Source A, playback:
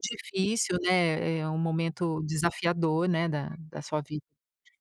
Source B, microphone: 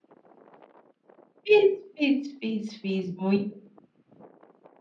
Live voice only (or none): fiz, fiz, fiz, fiz muito.